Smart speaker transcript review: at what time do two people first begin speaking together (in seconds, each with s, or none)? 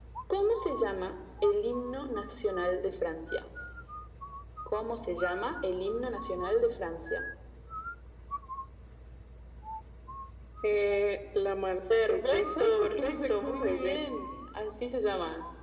11.9 s